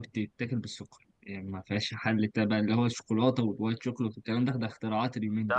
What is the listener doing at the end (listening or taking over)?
taking over